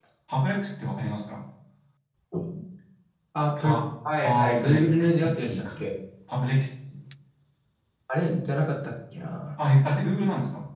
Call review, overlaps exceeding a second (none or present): present